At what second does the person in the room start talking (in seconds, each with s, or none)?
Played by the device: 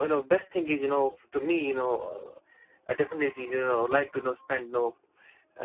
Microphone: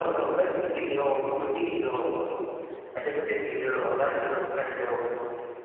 none